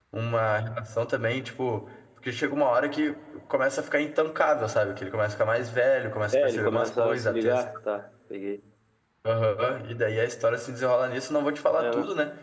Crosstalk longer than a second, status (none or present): present